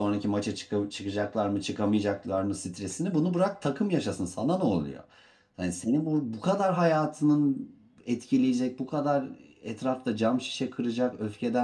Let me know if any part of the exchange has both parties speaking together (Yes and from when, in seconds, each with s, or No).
No